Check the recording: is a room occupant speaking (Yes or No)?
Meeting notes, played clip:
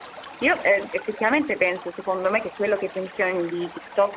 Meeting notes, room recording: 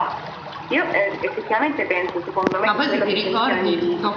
Yes